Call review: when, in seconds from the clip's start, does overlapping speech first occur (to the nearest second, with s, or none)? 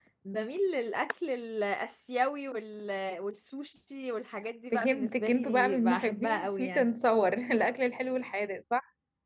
5 s